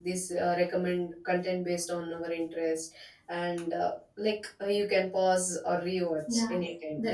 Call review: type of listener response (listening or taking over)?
taking over